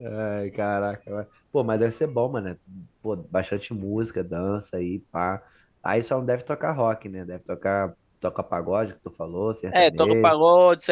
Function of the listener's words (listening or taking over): taking over